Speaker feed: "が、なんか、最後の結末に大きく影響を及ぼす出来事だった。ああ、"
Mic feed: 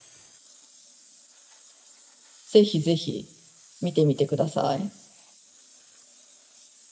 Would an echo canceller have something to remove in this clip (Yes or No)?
No